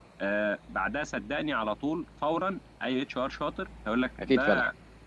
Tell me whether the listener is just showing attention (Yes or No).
Yes